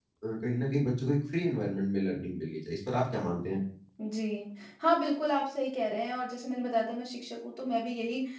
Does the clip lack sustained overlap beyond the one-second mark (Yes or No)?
Yes